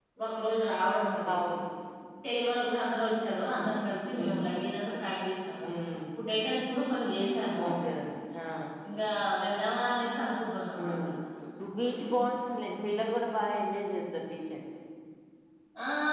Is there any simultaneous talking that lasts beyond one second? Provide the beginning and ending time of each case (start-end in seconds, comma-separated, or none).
none